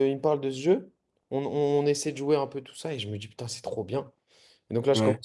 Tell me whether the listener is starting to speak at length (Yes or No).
No